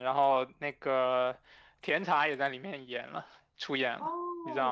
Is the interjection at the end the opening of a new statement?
Yes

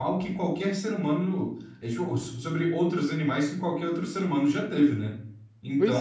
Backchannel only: Yes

